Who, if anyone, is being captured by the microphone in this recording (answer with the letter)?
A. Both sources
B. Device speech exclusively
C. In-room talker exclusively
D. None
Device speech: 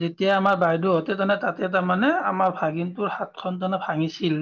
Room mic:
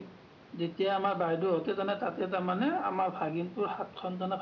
B